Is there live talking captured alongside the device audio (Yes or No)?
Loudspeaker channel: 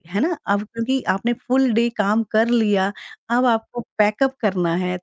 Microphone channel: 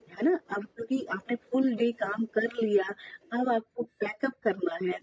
No